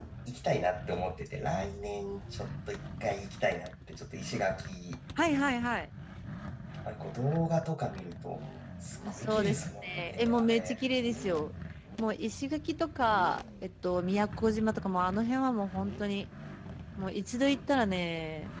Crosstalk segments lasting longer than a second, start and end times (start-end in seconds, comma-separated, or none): 9.1-10.8